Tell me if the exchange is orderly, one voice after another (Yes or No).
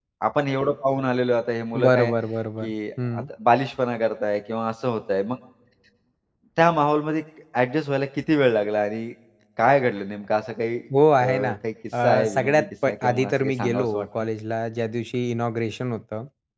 No